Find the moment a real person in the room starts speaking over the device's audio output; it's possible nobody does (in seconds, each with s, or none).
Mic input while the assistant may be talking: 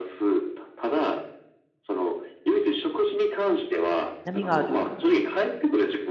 4.2 s